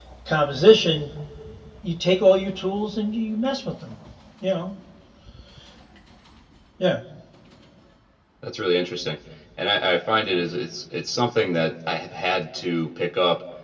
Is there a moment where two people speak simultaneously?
No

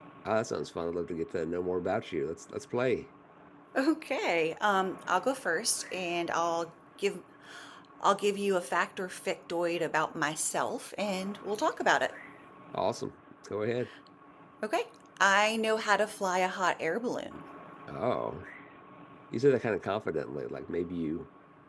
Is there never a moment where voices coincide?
Yes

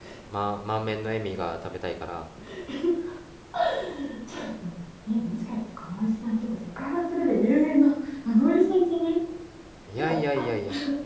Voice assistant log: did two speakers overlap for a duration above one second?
No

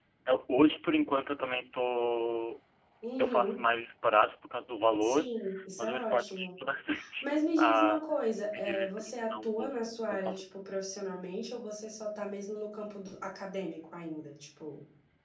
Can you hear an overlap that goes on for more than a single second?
Yes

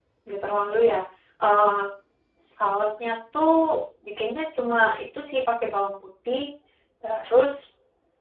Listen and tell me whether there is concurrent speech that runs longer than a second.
No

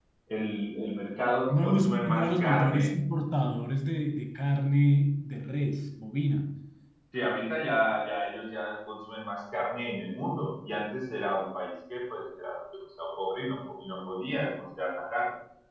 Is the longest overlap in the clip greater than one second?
Yes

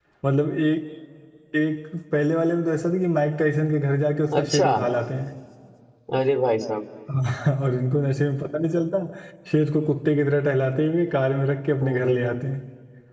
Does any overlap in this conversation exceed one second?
No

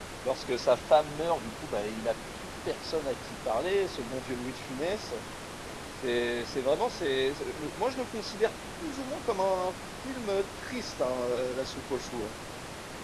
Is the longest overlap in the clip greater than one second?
No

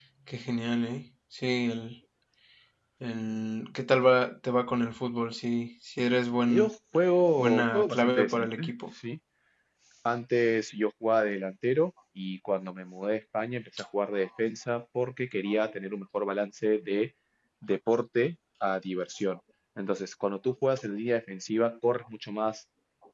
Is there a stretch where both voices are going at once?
Yes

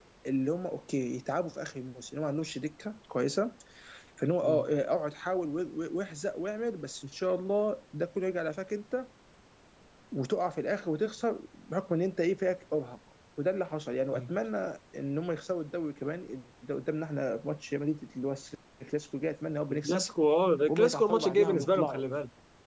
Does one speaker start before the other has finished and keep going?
Yes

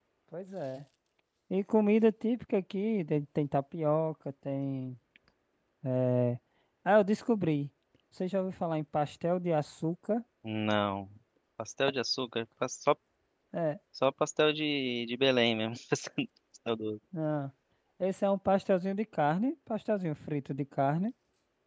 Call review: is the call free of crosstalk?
Yes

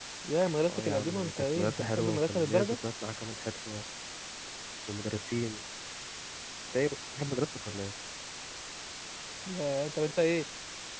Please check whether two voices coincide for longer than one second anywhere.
Yes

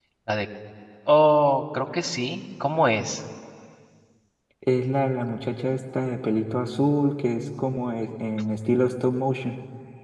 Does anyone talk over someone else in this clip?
No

